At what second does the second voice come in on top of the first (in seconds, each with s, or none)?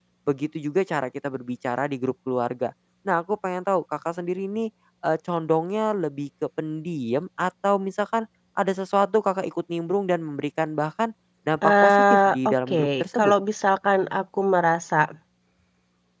11.6 s